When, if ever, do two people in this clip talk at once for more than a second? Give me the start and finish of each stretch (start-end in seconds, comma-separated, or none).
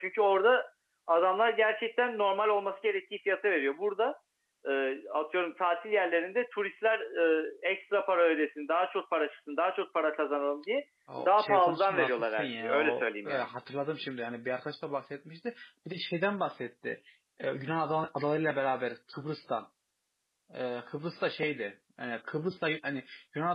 11.2-13.5